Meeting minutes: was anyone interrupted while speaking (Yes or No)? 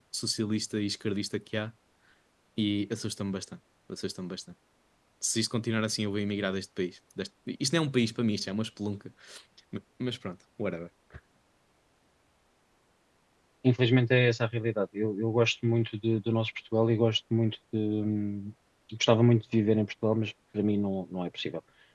No